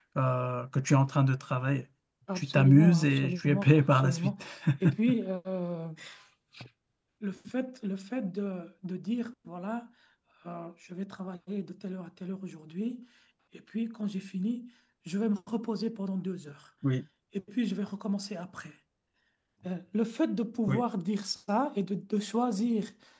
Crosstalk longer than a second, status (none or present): present